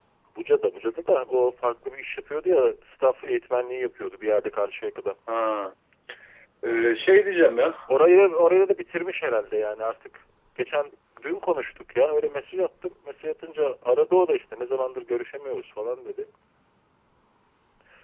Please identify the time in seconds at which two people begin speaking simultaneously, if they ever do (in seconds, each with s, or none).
none